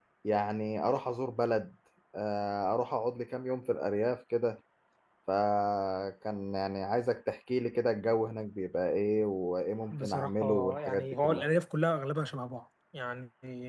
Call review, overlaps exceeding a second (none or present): present